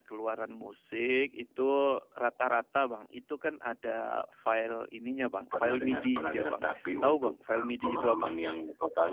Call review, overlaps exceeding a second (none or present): present